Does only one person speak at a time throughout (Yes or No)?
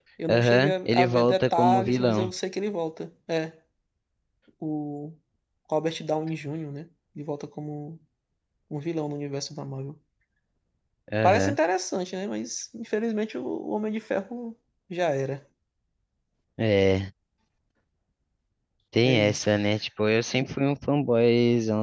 No